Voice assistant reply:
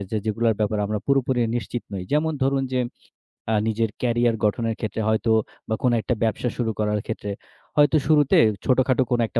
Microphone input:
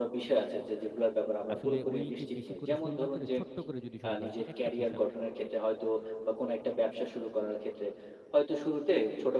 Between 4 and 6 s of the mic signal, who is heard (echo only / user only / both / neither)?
both